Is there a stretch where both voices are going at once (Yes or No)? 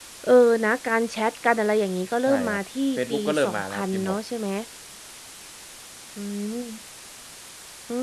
Yes